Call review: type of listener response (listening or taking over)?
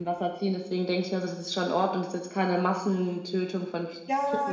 taking over